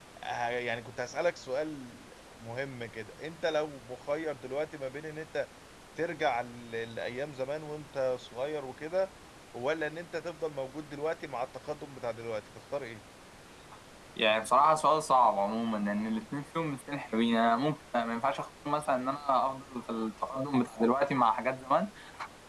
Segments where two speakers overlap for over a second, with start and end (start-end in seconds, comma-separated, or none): none